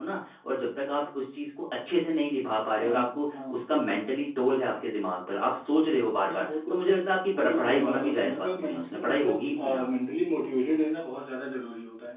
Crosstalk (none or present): present